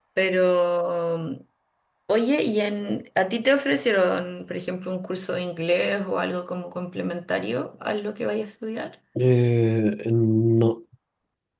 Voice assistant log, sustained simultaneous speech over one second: none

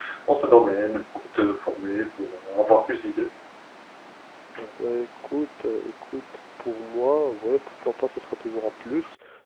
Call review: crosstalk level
none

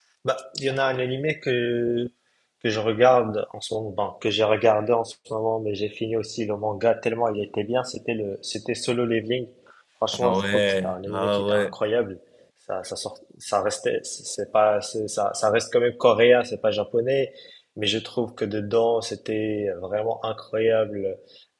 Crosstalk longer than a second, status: present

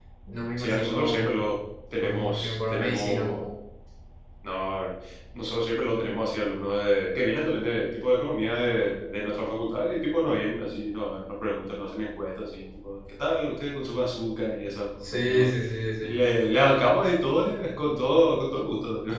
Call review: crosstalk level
present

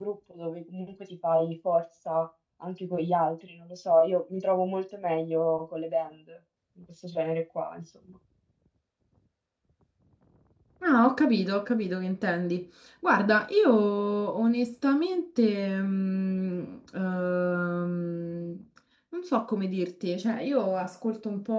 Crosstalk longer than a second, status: none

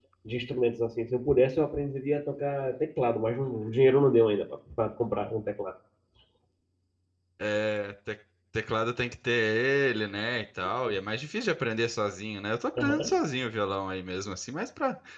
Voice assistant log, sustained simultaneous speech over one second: none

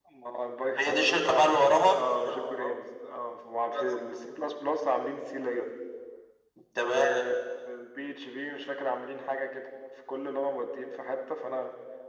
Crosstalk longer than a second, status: present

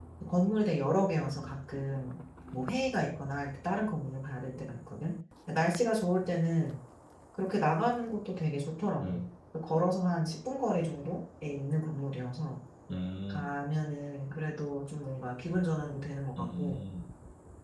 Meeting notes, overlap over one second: none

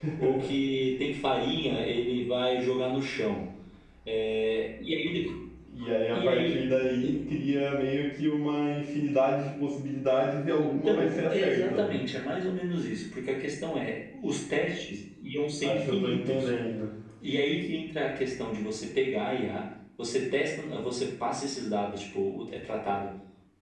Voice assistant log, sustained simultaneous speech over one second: present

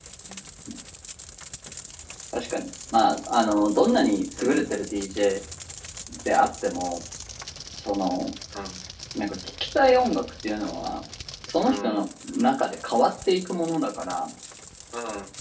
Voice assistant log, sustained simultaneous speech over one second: none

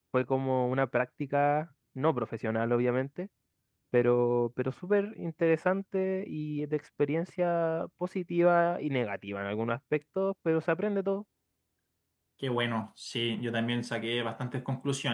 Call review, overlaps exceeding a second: none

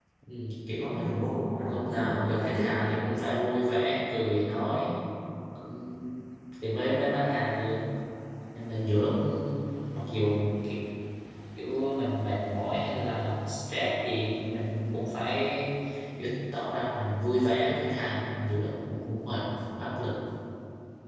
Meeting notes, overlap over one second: present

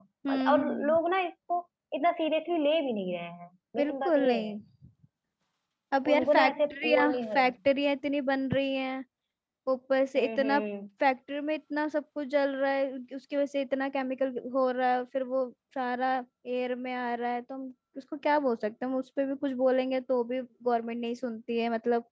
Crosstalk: present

